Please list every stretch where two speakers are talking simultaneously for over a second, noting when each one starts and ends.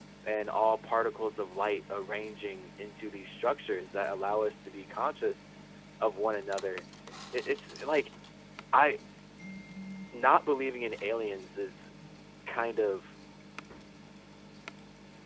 none

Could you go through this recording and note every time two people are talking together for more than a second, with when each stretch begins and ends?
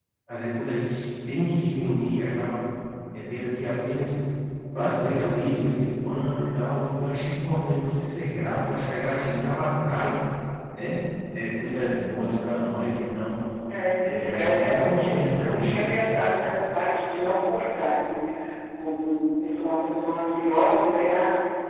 14.0-15.8

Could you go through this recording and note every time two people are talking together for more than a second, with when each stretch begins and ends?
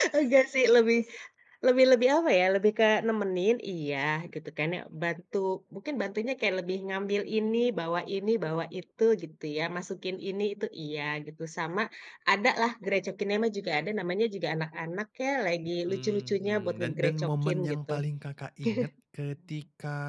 15.9-17.9

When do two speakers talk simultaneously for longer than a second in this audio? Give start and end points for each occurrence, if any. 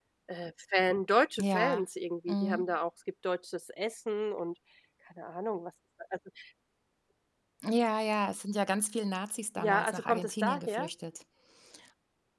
9.6-10.9

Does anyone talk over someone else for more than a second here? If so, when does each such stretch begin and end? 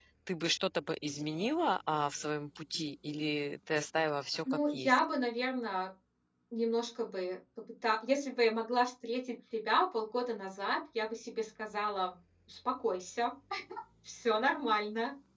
none

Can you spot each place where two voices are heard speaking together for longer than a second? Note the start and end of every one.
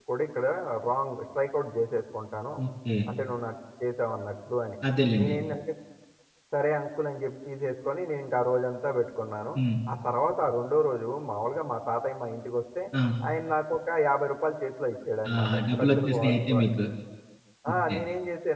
15.4-16.6

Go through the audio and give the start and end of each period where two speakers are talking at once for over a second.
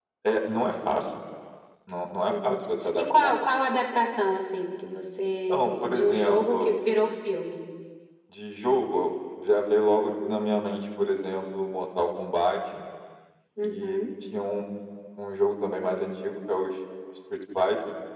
5.5-6.8

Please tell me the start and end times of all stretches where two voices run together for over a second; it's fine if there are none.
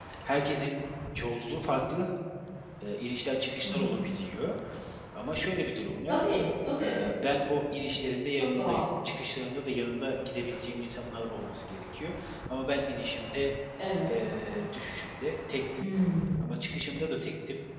none

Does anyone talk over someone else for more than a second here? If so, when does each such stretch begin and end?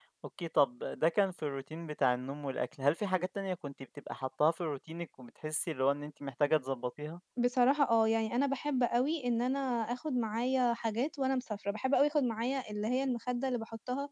none

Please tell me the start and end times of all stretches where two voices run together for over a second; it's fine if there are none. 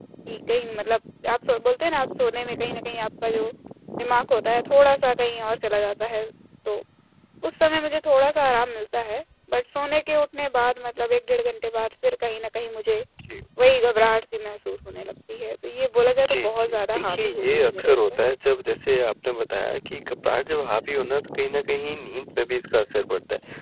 16.3-18.2

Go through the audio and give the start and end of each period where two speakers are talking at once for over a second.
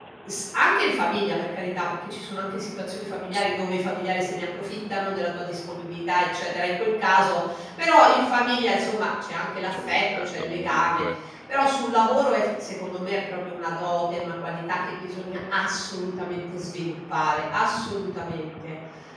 9.7-11.1

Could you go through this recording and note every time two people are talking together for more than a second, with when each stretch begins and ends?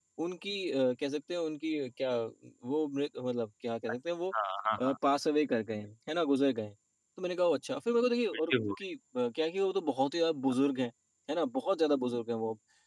none

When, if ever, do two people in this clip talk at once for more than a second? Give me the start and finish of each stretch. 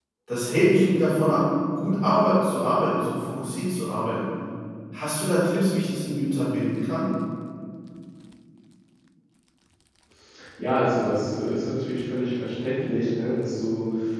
none

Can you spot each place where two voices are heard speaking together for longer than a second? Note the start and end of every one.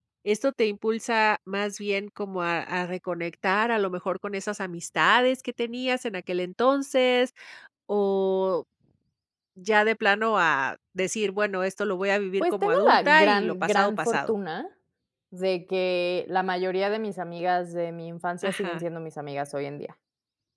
12.4-14.3

